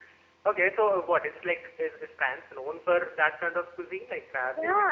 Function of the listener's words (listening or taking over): taking over